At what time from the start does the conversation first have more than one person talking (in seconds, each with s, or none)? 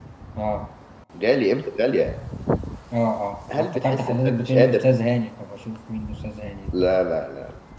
3.6 s